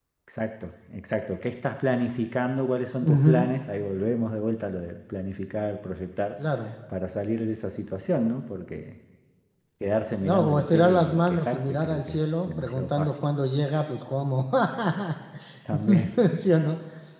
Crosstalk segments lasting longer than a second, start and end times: 10.2-13.2

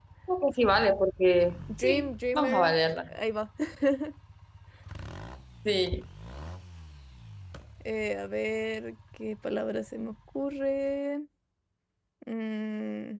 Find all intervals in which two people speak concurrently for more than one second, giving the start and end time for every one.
1.8-3.1

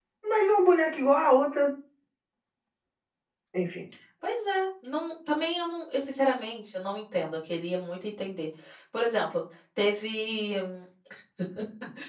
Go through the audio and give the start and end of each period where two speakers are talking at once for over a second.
none

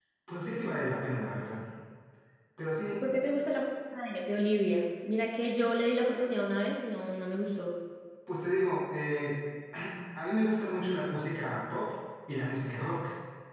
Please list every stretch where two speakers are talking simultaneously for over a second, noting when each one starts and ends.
none

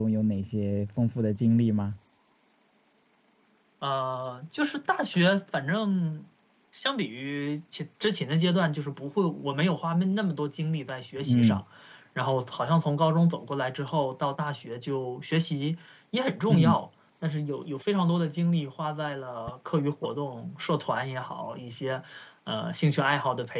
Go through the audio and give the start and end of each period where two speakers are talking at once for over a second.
none

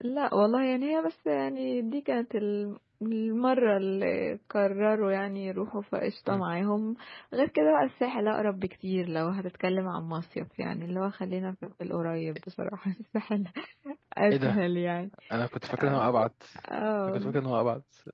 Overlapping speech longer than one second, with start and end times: none

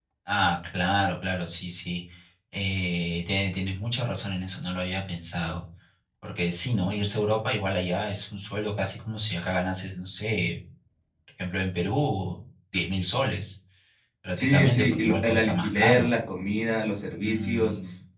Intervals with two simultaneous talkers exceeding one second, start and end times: 14.4-16.1

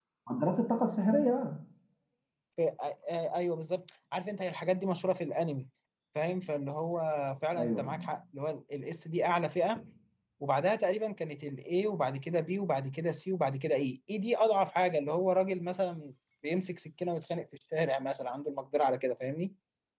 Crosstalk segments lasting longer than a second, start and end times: none

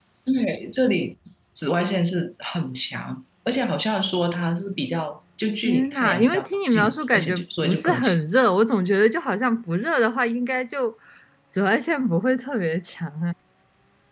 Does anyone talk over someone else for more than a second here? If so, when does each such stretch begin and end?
5.6-8.2

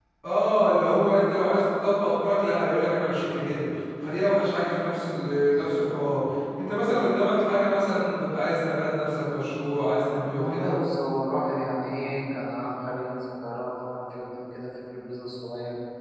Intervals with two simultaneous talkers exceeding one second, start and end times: none

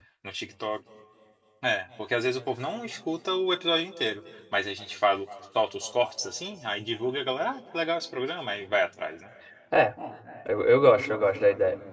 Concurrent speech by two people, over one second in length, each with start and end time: none

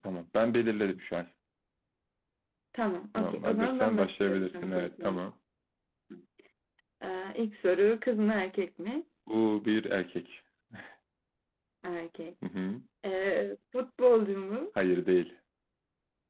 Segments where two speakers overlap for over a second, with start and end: 3.1-5.2

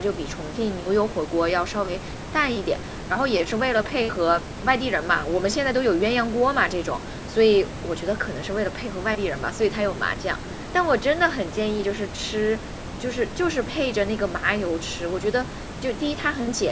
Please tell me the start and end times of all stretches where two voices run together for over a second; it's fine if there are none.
none

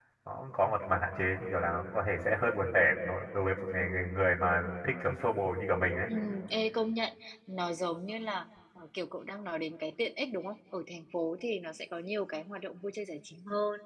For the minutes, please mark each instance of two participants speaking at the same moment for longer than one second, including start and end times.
none

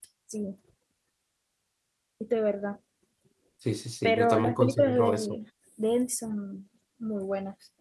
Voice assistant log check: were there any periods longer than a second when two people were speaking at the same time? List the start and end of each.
4.0-5.3

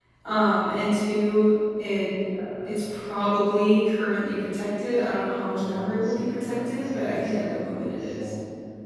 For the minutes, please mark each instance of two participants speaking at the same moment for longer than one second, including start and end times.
5.6-8.3

